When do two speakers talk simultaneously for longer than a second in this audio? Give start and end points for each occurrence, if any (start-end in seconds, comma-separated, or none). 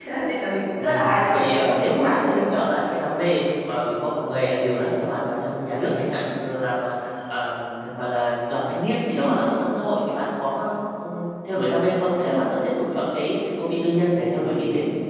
0.8-2.6